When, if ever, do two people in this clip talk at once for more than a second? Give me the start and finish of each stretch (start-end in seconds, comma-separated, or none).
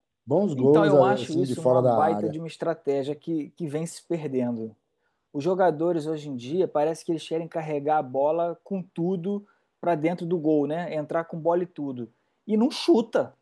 0.6-2.3